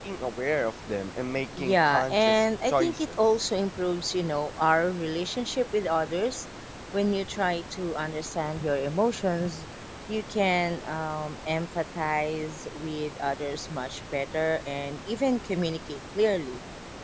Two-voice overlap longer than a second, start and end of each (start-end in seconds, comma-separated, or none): 1.6-3.2